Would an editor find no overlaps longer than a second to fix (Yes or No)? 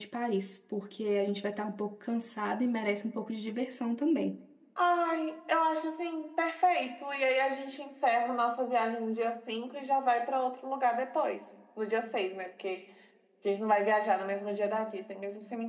Yes